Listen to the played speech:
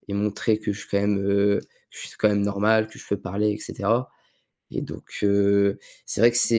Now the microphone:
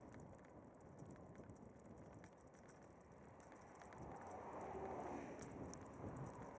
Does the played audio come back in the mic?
No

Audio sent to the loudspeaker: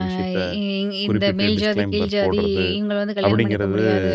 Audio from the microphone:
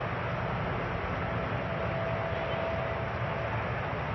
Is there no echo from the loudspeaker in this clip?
Yes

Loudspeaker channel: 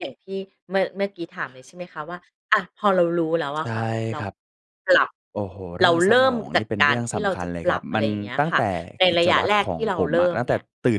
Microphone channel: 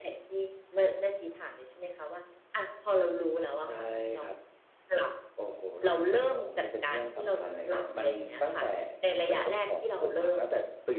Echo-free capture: No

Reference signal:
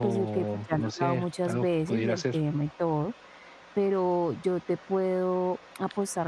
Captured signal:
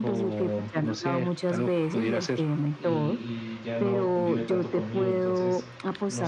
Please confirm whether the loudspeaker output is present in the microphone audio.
Yes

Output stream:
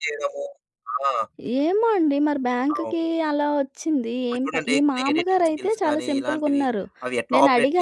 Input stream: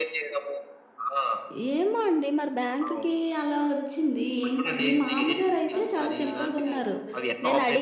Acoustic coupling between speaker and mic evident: Yes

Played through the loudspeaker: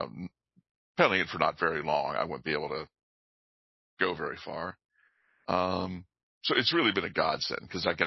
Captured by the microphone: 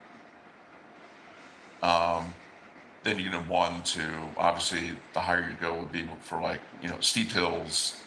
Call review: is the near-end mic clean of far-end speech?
Yes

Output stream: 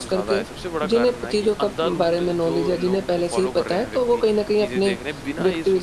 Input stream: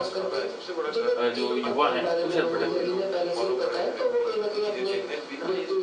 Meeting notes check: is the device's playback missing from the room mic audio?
No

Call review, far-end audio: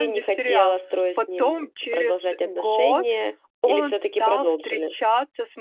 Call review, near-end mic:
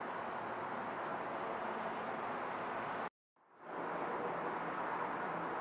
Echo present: No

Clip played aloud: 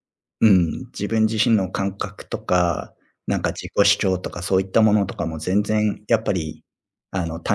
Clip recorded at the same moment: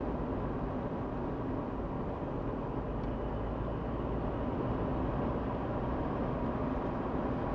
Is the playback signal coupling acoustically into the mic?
No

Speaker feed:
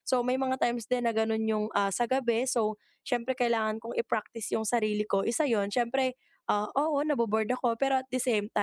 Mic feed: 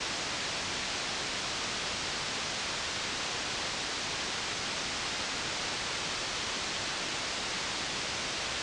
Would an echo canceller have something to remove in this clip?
No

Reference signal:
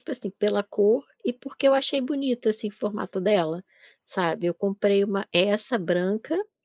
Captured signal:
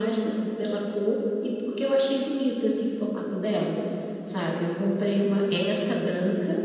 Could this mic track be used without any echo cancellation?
No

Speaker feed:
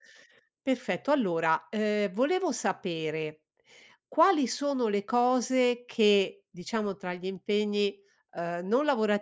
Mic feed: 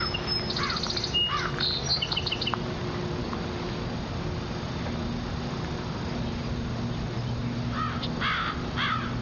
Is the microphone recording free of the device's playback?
Yes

